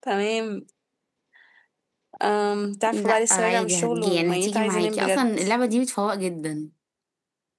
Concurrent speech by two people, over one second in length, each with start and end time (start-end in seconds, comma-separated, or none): 2.9-5.4